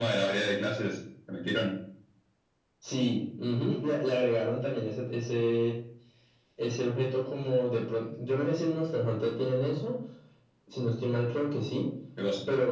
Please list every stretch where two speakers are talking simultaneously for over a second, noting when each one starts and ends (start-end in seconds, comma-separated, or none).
none